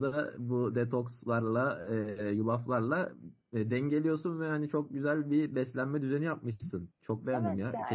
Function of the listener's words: taking over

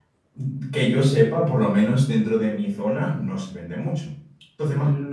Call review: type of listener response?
taking over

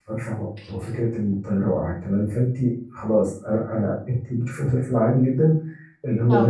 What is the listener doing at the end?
listening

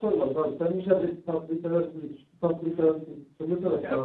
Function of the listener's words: taking over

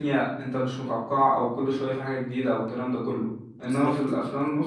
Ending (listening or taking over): listening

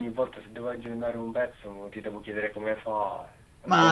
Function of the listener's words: taking over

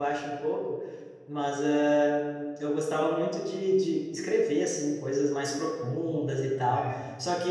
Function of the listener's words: listening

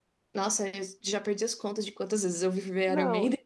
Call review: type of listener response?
taking over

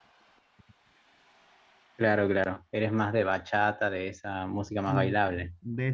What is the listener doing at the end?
taking over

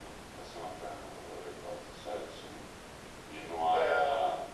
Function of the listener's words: listening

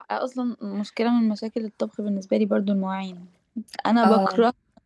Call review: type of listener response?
listening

